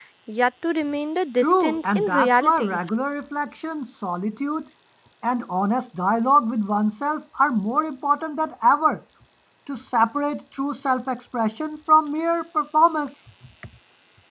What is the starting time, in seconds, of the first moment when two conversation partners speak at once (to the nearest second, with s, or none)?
1 s